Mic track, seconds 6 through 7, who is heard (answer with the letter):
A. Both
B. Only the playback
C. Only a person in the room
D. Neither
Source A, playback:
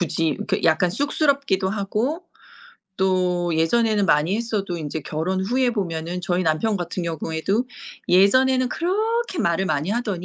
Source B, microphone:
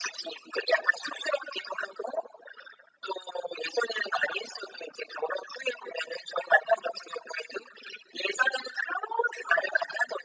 B